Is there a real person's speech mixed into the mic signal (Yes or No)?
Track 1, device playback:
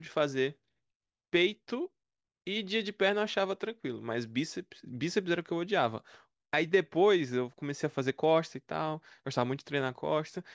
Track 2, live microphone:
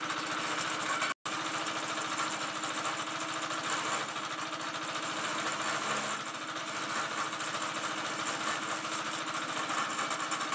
No